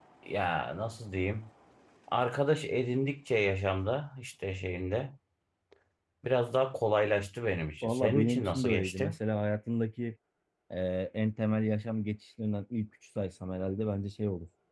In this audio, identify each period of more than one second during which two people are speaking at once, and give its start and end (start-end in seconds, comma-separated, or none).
7.8-9.1